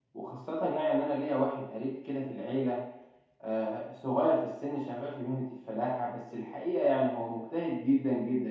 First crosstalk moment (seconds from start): none

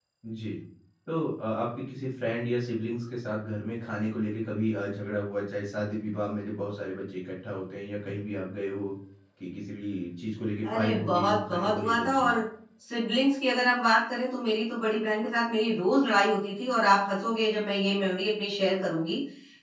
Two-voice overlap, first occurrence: 10.6 s

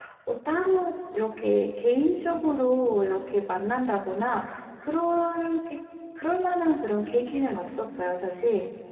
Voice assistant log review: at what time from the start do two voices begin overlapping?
none

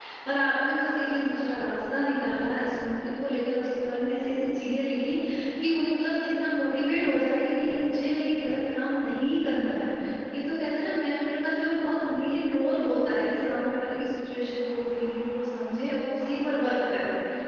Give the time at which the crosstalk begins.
none

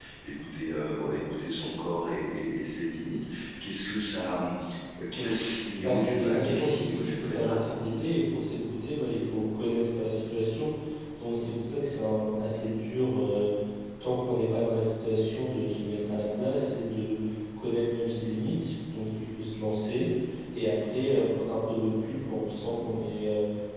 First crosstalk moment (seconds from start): 5.8 s

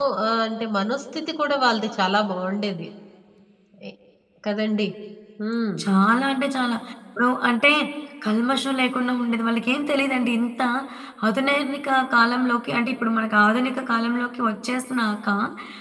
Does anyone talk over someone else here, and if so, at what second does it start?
none

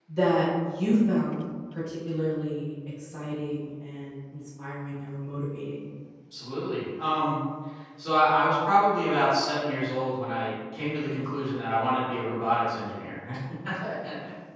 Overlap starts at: none

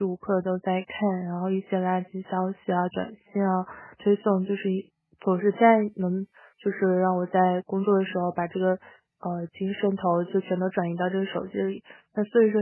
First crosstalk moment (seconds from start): none

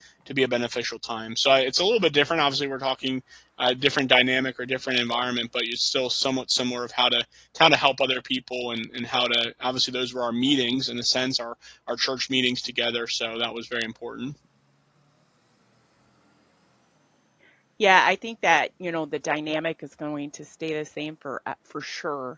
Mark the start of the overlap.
none

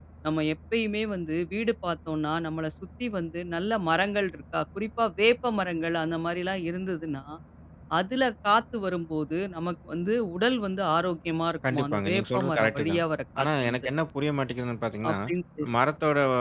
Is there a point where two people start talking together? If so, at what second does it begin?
11.7 s

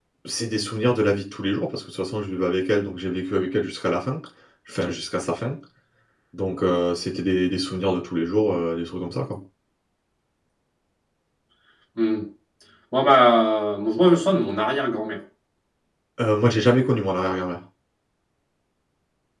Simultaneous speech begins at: none

